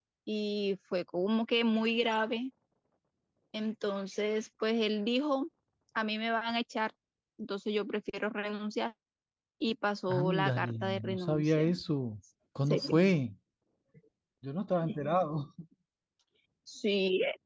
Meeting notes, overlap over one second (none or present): present